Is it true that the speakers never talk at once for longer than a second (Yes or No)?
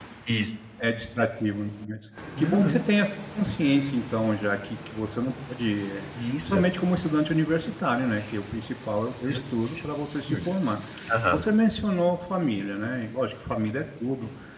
Yes